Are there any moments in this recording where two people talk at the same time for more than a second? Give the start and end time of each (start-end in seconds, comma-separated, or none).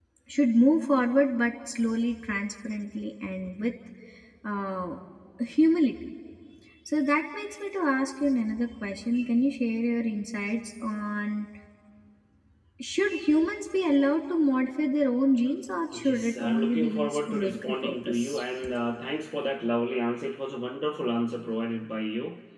15.9-18.4